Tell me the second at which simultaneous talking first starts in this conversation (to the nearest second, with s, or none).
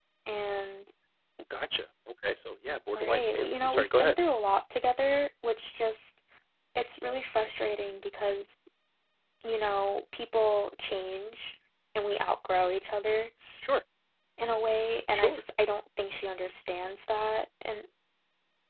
3 s